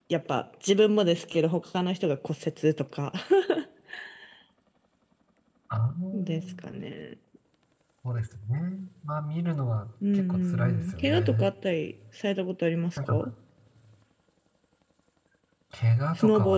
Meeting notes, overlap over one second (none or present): present